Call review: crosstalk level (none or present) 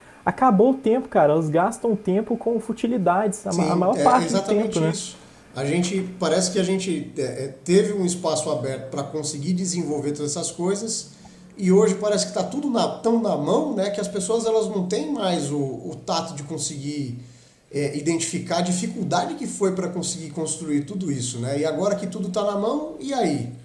present